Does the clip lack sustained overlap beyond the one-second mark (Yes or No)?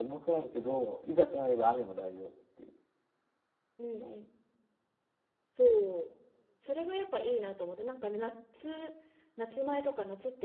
Yes